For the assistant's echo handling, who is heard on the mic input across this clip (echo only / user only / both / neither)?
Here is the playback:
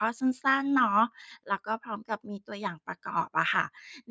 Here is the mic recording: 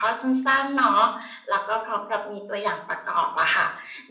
echo only